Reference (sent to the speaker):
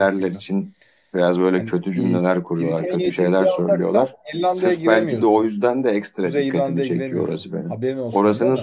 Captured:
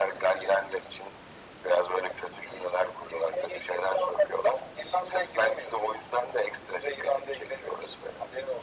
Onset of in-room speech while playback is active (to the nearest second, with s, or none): none